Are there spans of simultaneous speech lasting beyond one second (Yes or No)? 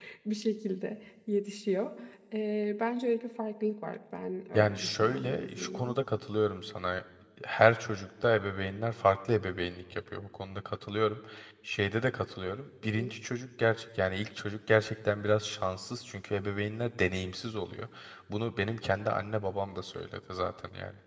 Yes